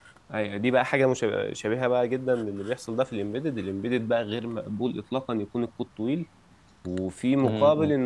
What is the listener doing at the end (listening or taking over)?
listening